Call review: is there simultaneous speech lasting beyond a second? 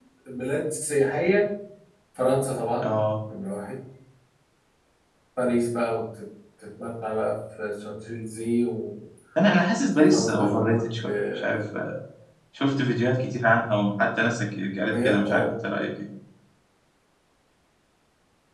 Yes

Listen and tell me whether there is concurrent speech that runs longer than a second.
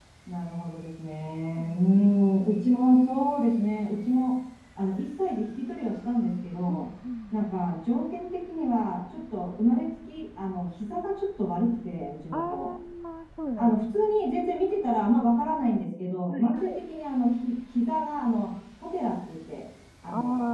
No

